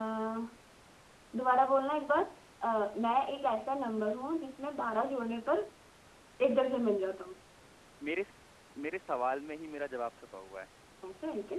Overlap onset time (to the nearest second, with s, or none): none